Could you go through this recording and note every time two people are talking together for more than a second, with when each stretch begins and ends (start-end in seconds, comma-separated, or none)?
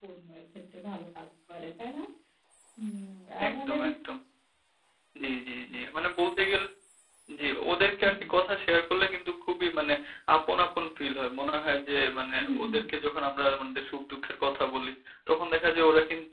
none